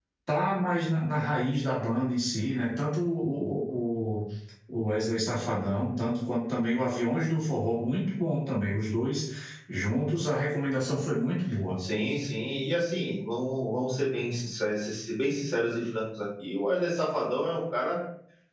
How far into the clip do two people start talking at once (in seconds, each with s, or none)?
none